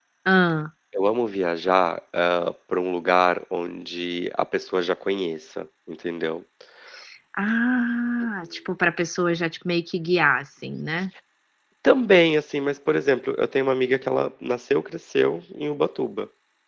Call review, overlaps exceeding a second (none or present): none